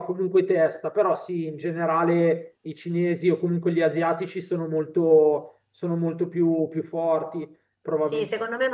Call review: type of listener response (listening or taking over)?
taking over